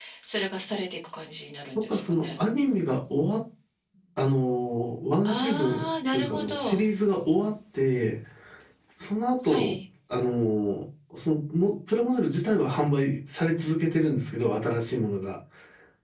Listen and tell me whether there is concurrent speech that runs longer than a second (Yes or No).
Yes